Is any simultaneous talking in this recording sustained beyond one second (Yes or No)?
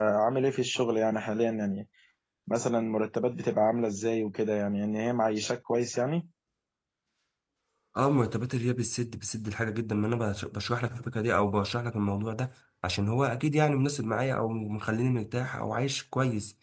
No